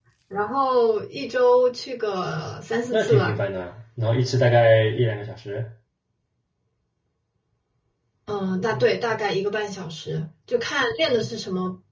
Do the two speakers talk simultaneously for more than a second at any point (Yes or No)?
No